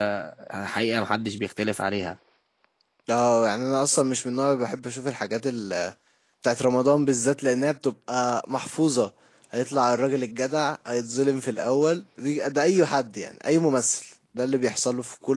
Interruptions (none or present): none